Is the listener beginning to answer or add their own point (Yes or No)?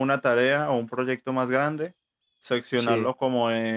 No